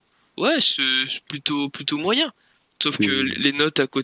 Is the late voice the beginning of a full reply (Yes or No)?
No